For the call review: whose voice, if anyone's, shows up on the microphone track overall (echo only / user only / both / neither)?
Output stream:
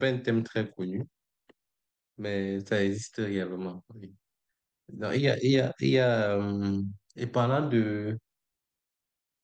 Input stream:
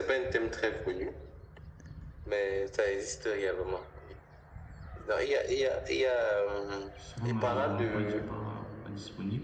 both